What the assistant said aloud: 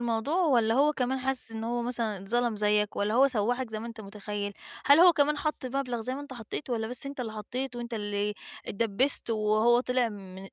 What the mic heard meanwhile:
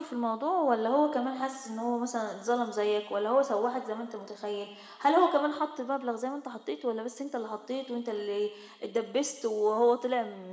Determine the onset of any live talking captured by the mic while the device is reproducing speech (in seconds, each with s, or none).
none